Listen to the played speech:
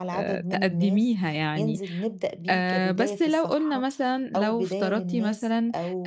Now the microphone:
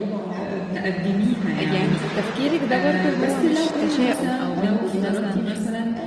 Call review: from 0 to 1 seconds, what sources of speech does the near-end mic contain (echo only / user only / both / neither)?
echo only